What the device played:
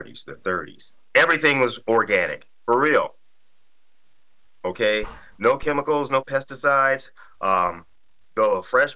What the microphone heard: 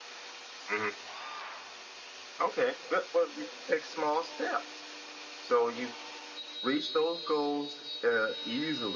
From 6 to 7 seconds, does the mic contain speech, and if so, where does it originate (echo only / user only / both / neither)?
user only